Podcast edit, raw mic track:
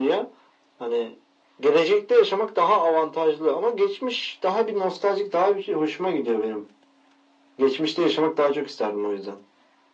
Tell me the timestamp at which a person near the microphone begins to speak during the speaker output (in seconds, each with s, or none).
none